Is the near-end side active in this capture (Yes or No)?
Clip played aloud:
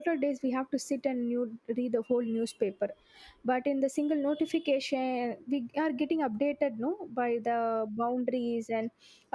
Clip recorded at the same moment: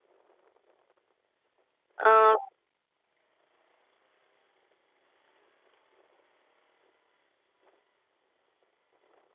Yes